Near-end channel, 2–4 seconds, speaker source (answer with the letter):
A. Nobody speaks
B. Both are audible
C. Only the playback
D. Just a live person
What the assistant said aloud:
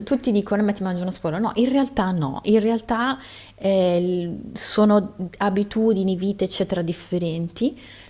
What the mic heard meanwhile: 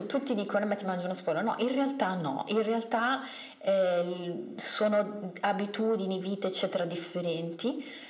C